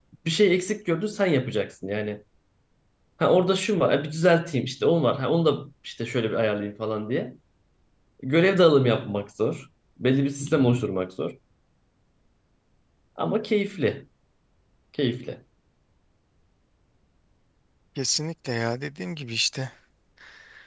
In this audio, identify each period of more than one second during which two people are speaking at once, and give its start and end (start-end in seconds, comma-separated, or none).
none